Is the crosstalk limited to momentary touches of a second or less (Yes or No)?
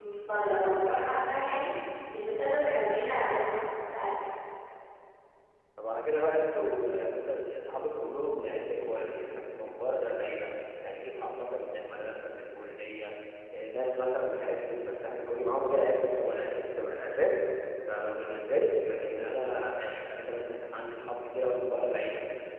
Yes